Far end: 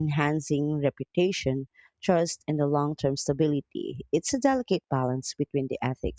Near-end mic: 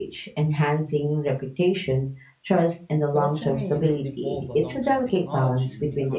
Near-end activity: present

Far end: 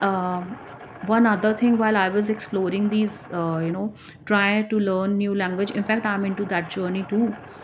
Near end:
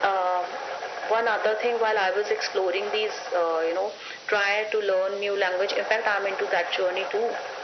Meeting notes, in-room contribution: none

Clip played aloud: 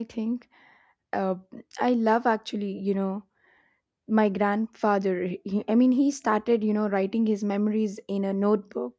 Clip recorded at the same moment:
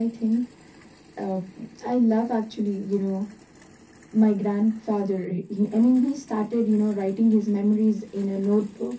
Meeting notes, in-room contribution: none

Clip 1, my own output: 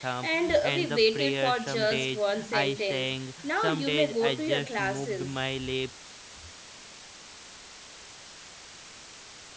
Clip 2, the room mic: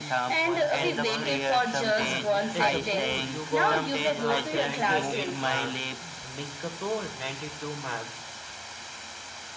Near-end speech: present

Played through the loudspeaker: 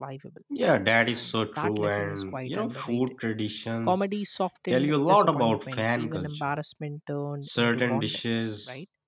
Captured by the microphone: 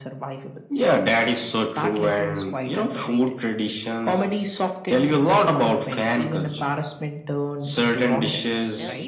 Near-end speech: present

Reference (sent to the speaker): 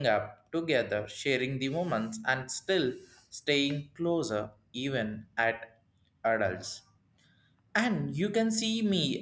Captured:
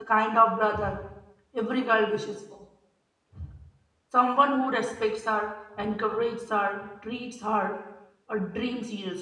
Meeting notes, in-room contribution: present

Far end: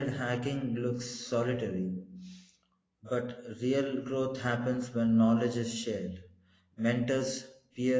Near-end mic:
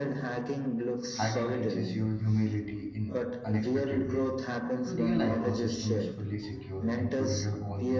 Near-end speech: present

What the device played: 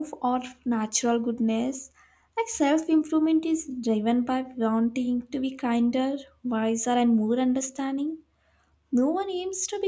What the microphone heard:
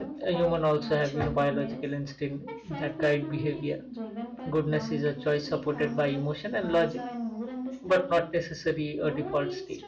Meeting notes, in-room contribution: present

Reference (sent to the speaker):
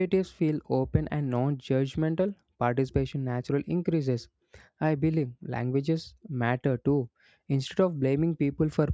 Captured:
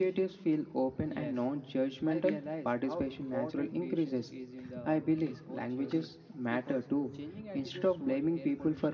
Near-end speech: present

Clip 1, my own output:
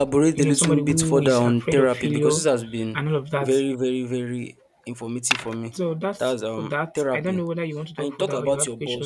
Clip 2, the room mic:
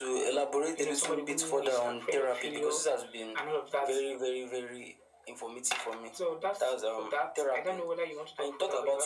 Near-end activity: none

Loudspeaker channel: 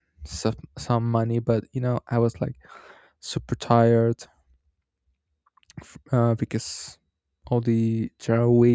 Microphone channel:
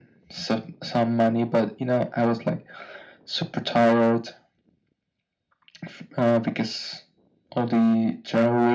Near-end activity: none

